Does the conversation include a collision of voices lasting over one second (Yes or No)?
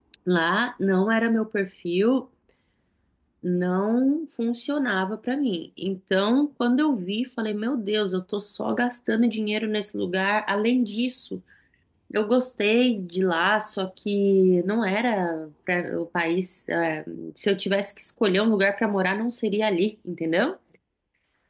No